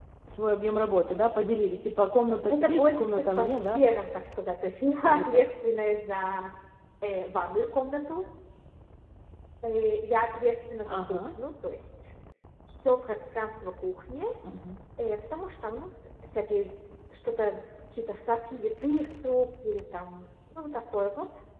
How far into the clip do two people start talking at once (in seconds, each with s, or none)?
2.5 s